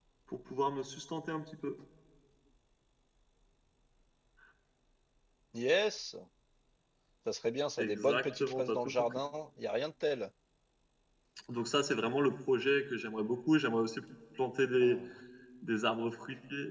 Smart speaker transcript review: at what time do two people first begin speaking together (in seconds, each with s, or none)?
7.8 s